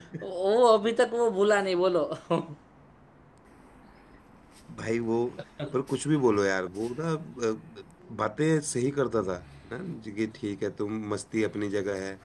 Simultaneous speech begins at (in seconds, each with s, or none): none